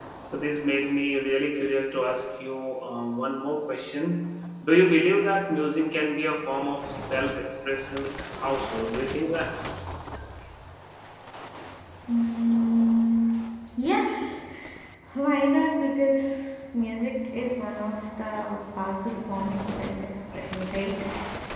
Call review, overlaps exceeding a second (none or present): none